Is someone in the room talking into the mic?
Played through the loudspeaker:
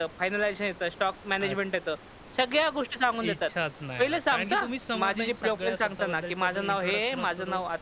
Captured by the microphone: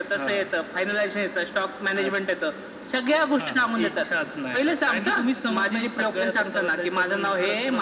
Yes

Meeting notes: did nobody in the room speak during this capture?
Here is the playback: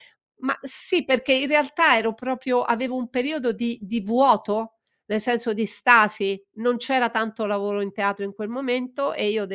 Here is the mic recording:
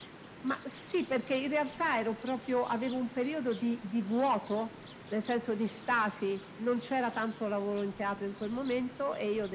Yes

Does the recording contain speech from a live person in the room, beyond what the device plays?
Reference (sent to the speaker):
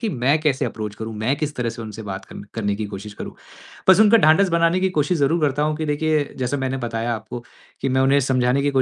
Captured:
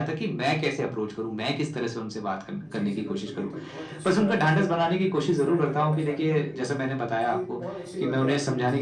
Yes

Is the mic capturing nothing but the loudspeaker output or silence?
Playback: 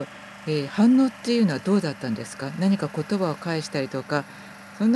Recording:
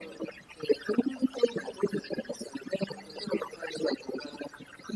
Yes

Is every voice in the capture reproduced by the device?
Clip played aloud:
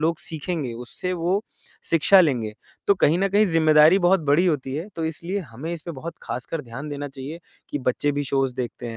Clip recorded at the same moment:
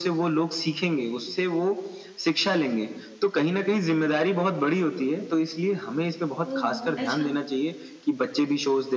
No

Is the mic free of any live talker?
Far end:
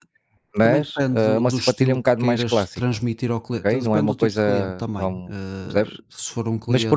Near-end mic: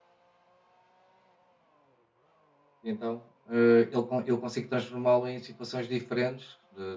No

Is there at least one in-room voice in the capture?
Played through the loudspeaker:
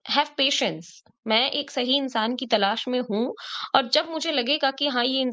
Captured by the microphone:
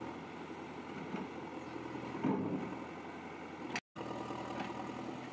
No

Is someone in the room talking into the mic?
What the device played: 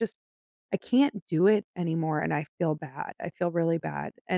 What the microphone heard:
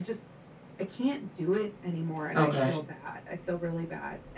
Yes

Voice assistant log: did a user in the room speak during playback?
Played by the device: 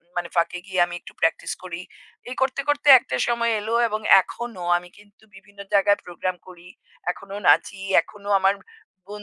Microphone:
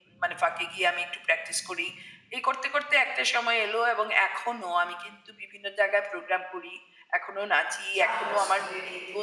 Yes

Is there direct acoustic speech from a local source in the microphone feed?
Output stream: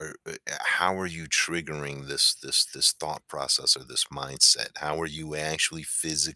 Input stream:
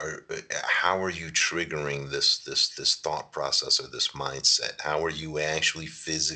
No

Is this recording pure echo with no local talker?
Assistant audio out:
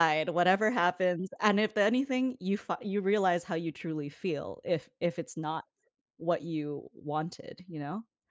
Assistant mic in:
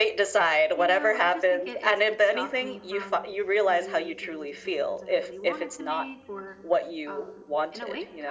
No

